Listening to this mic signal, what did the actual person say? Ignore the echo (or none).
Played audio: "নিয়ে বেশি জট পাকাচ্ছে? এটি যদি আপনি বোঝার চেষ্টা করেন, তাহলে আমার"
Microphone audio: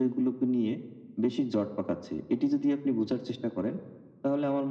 none